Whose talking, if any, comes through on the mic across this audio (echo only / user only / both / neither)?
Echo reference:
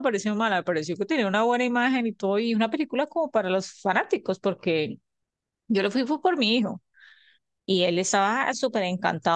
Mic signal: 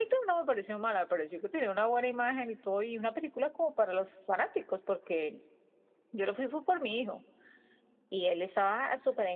echo only